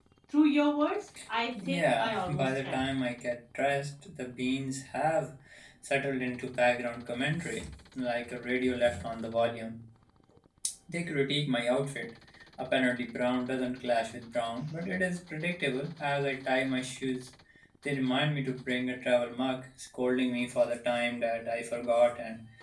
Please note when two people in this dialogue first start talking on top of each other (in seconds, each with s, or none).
1.7 s